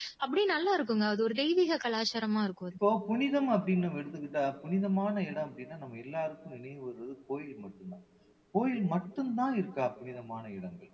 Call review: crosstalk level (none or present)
none